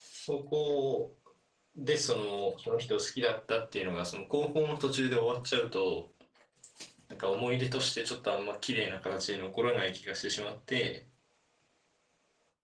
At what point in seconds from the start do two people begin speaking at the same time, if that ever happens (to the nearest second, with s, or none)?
none